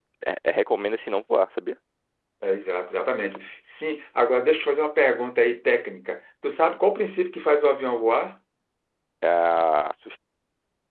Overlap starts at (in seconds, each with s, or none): none